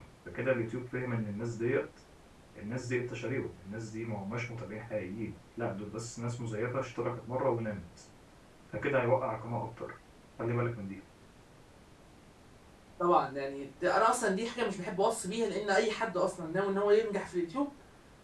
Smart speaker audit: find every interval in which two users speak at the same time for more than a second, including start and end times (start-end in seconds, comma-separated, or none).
none